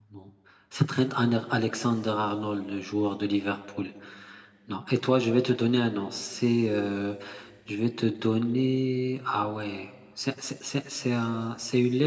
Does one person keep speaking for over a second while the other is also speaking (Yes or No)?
No